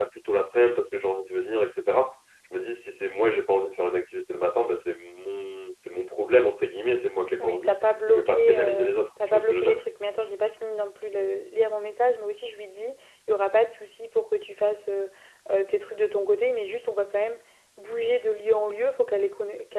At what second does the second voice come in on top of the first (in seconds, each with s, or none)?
7.4 s